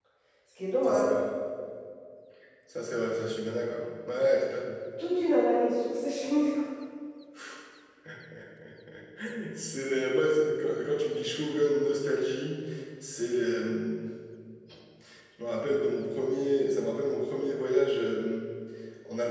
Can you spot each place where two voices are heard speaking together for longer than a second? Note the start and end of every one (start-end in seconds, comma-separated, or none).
none